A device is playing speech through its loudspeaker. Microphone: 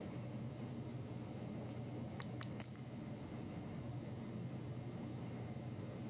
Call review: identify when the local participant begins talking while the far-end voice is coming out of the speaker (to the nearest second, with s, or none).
none